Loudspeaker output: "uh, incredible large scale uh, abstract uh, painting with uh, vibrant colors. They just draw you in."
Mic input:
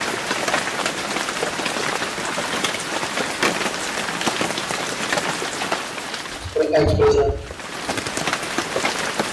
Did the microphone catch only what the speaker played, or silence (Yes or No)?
No